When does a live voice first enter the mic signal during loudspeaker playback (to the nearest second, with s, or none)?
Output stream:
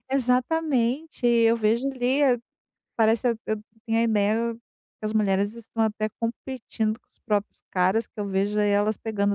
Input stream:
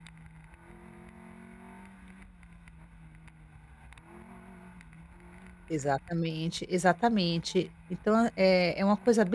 6 s